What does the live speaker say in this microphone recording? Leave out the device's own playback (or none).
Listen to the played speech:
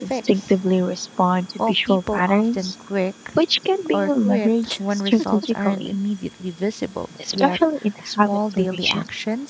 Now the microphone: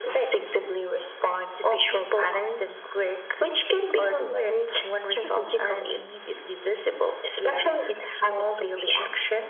none